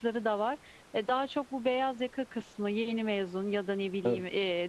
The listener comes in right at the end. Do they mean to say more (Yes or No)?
No